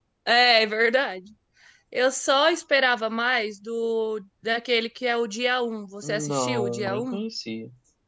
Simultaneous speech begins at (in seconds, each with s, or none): 6.0 s